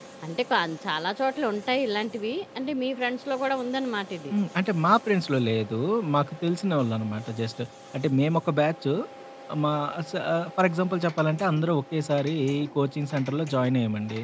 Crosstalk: none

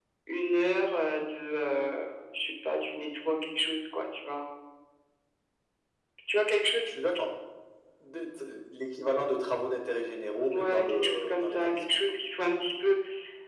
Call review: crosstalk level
present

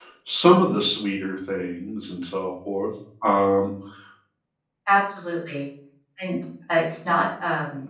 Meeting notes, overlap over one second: none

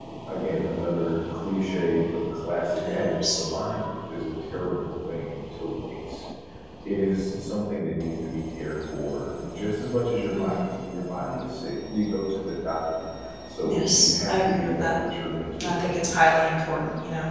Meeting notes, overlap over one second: present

